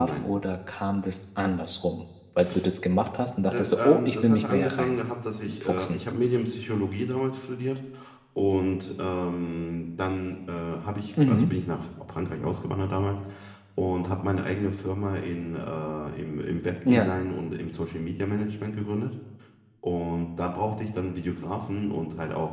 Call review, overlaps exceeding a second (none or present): present